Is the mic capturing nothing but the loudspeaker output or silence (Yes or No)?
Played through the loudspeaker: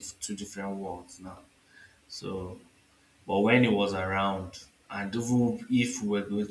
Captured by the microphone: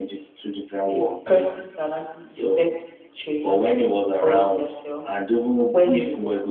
No